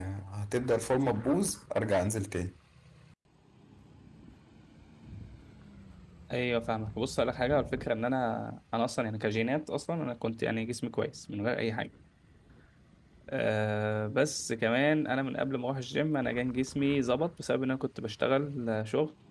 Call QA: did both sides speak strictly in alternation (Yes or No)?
Yes